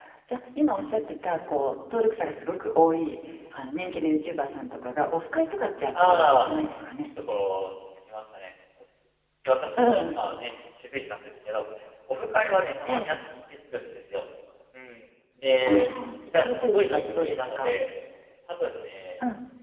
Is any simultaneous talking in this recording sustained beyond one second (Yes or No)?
Yes